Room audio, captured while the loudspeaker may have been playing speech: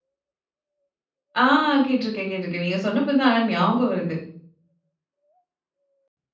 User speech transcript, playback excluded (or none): ஆ கேட்டிருக்கேன், கேட்டிருக்கேன். நீங்க சொன்னப்ப தான் ஆனா ஞாபகம் வருது.